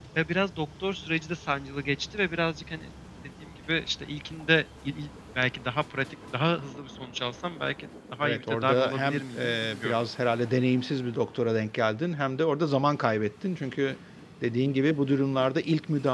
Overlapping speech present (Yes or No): Yes